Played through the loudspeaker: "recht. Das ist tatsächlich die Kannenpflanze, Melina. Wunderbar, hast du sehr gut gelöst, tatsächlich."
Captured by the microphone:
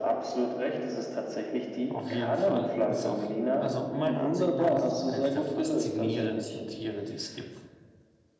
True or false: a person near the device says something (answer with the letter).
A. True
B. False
A